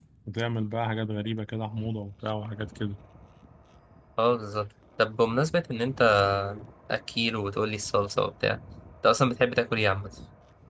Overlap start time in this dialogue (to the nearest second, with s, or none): none